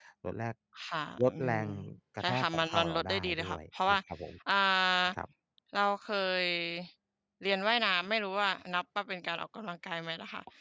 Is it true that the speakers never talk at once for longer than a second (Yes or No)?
No